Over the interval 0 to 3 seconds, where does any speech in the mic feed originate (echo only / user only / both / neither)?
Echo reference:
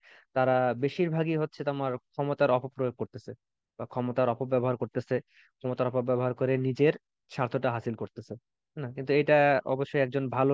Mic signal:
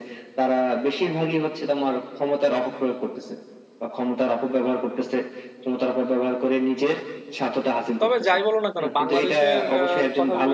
echo only